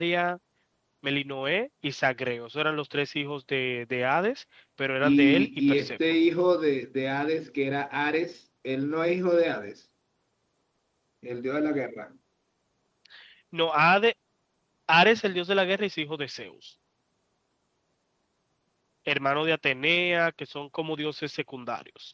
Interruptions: present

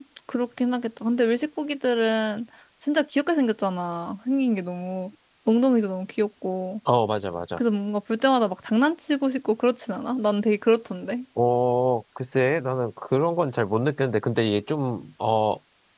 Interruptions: none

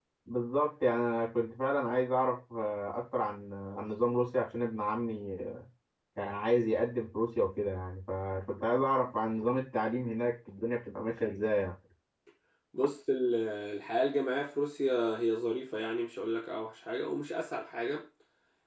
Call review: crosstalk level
none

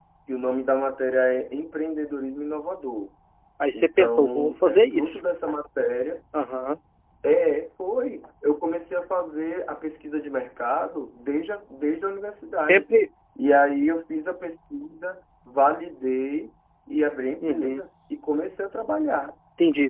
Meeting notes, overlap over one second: present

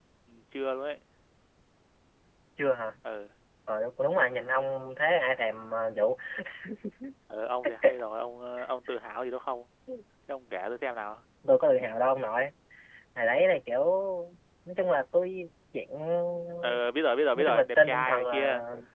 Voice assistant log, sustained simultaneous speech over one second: present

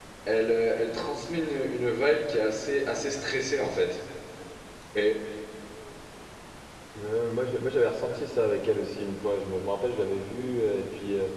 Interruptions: none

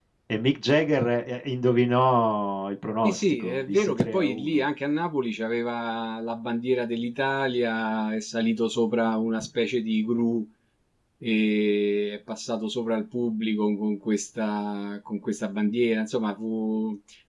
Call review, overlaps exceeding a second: present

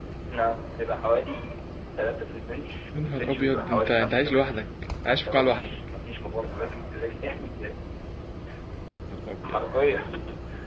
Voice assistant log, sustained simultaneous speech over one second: present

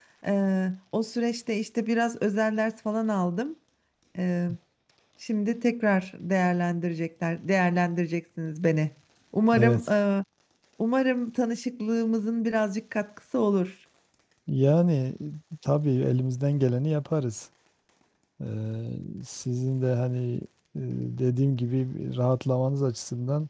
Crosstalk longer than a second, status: none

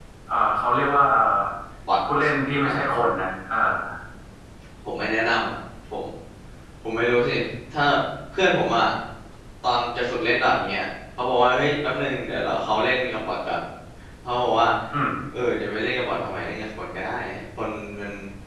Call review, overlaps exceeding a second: none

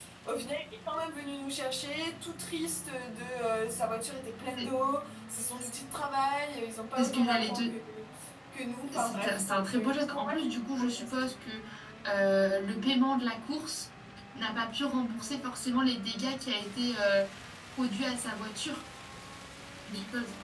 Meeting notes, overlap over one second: present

